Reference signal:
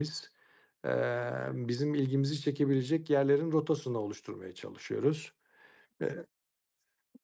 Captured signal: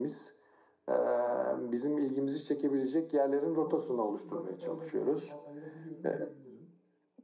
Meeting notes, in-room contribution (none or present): present